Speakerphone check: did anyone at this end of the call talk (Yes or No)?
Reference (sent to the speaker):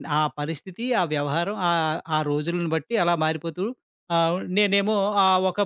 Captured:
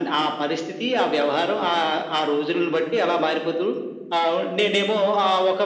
No